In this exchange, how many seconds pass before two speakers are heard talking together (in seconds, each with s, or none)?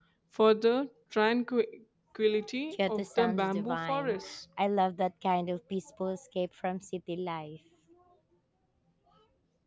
2.7 s